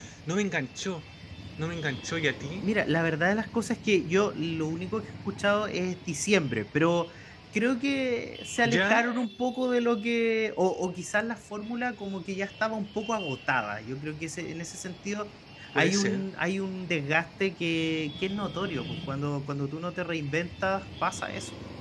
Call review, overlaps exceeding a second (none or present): none